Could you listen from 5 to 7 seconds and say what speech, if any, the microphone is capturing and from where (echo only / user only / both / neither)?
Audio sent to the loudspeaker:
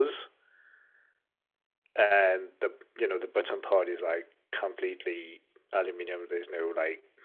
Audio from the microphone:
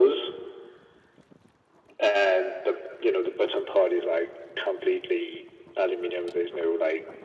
echo only